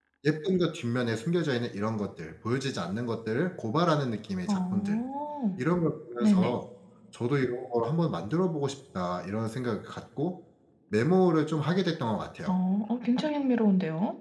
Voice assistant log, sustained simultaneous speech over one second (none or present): none